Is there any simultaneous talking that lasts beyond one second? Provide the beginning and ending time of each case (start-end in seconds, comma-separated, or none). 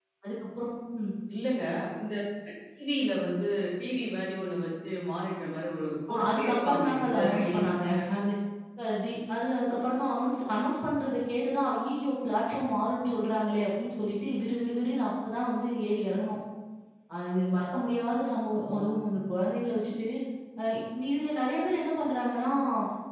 6.1-7.7